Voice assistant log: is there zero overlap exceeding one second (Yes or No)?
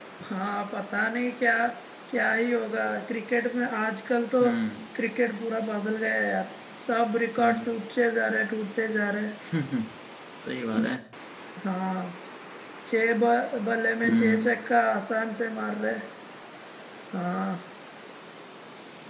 Yes